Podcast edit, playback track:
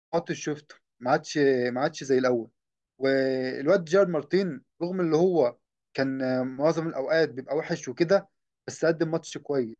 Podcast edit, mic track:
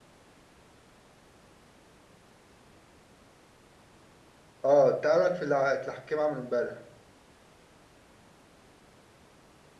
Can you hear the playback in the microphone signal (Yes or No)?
No